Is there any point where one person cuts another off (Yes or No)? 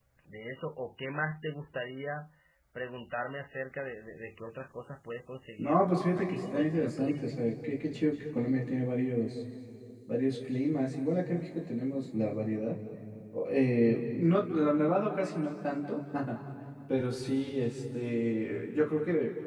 Yes